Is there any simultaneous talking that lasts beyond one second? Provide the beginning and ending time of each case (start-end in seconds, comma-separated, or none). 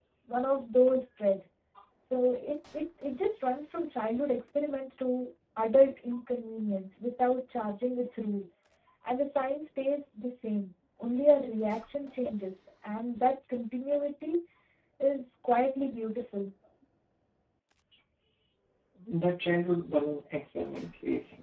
none